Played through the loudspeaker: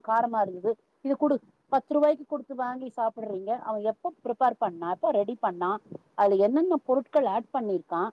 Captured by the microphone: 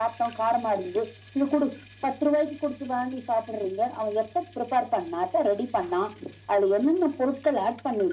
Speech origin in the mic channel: echo only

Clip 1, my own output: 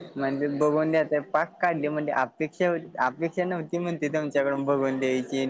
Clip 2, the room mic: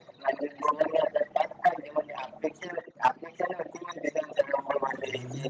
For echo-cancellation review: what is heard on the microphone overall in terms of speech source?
echo only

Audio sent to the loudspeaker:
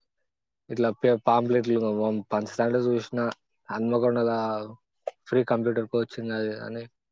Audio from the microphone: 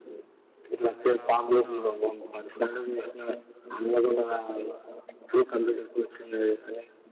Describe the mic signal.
both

